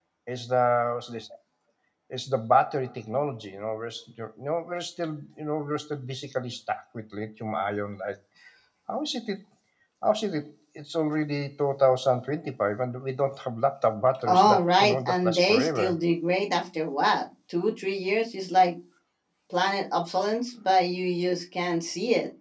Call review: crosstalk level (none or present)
present